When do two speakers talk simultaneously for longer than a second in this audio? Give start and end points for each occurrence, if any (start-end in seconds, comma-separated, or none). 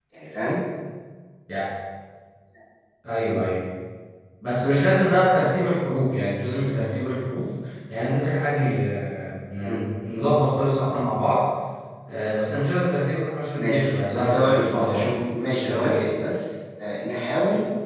13.6-15.1